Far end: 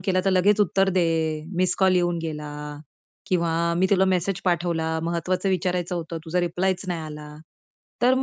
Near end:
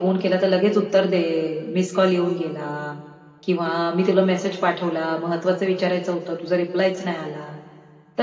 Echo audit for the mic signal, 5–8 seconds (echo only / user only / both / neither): echo only